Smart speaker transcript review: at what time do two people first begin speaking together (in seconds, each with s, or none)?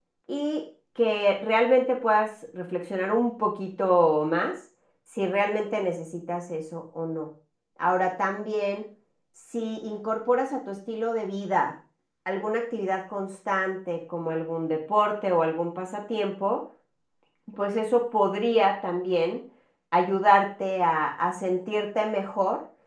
none